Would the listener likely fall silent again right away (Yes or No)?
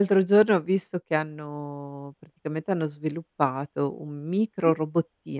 Yes